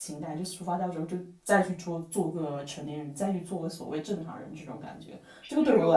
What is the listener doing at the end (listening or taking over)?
taking over